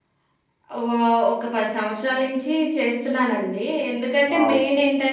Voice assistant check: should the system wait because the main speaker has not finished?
Yes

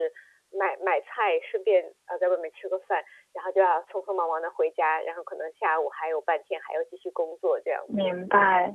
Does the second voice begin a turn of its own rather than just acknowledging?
Yes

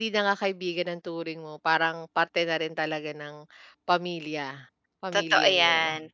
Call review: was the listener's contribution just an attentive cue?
No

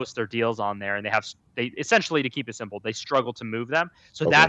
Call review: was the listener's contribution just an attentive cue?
Yes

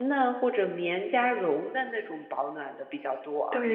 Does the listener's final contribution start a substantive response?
Yes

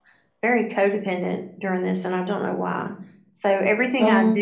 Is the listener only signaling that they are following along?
Yes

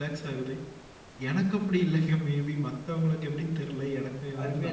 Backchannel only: No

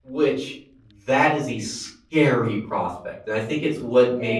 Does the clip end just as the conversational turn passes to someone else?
No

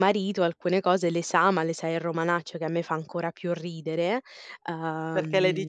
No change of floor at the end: No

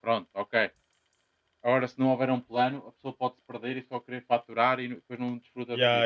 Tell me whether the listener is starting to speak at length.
Yes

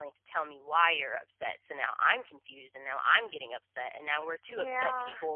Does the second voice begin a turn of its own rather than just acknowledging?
No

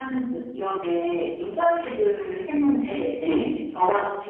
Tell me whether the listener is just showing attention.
Yes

